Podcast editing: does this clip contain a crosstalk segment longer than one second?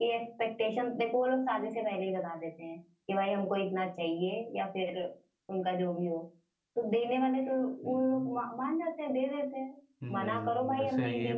Yes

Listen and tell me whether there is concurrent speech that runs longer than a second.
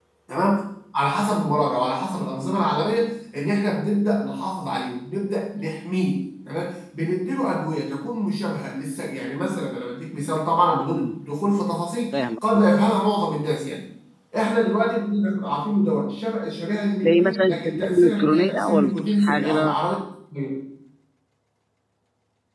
Yes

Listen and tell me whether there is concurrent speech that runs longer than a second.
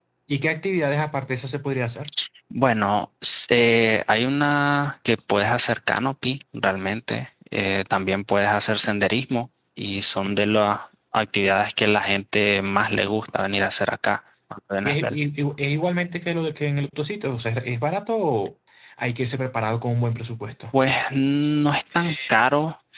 No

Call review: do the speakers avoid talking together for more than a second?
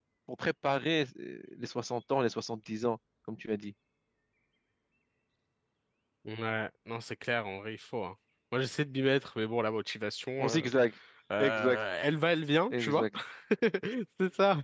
Yes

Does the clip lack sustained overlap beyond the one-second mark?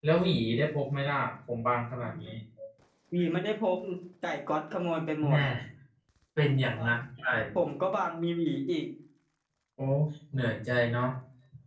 Yes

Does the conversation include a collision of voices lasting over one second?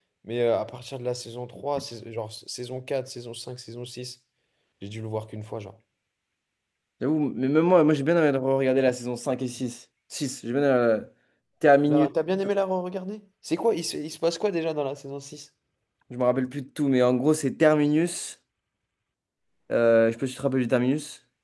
No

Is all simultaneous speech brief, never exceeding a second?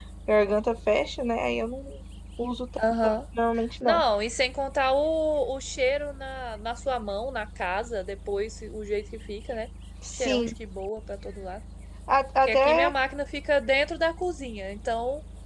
Yes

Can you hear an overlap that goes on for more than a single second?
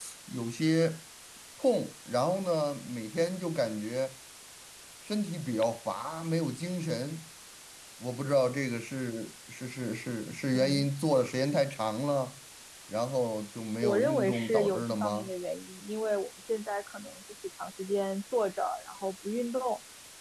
Yes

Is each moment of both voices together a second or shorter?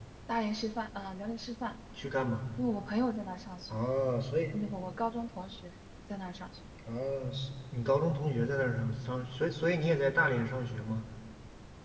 Yes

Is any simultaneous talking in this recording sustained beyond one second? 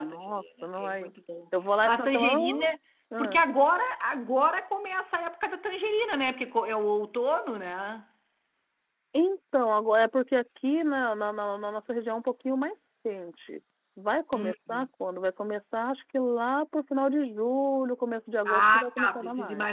Yes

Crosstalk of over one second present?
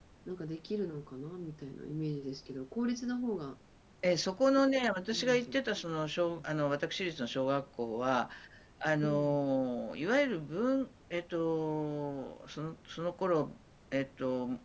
No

